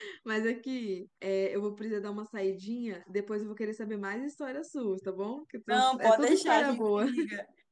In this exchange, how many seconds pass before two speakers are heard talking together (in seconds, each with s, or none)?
5.7 s